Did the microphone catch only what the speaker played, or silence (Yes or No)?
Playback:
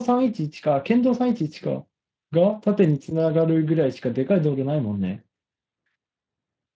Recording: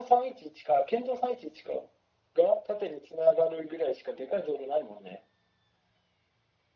Yes